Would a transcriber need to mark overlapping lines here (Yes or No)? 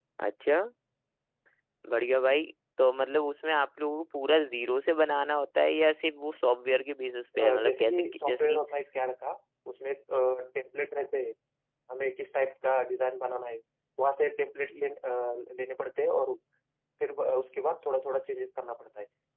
Yes